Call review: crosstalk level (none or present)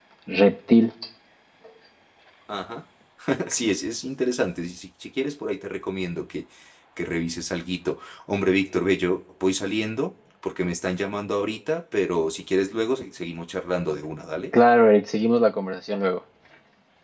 none